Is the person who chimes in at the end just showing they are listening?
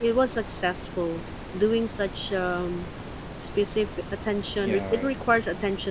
Yes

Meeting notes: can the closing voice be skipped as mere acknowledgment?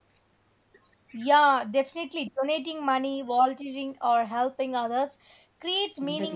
Yes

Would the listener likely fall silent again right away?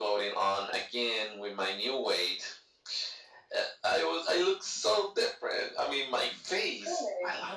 Yes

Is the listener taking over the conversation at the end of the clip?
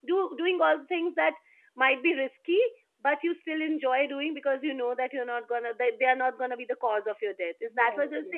Yes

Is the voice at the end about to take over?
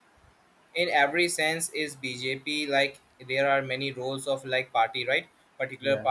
No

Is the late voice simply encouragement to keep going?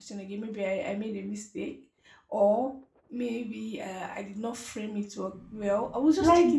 No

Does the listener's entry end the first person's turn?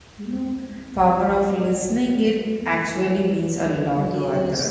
Yes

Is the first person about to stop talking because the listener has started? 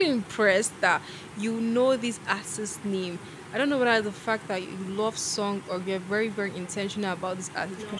No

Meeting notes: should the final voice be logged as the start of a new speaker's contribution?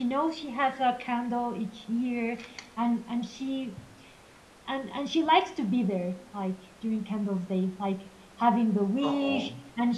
No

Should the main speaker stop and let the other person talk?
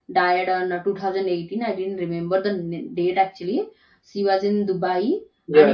No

